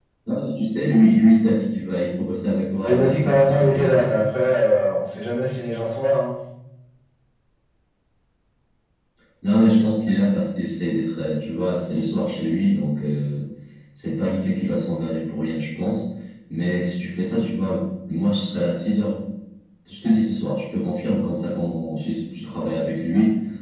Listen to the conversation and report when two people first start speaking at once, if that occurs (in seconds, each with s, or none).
2.8 s